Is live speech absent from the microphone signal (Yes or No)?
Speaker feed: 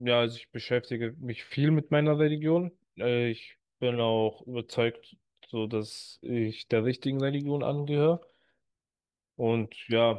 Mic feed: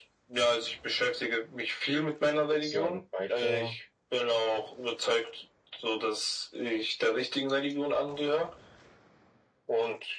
No